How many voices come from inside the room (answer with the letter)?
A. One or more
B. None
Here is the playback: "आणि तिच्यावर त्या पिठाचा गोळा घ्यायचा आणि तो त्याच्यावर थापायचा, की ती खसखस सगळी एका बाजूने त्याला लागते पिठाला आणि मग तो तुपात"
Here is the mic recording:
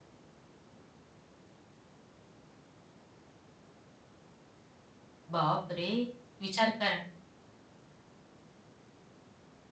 A